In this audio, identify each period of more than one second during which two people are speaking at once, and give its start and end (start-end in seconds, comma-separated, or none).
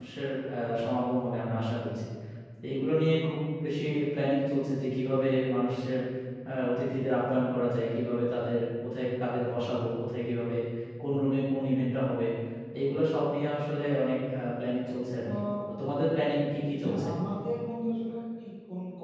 none